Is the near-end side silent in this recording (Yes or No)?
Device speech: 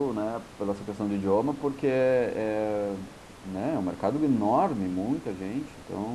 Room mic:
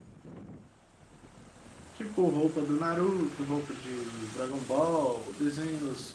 No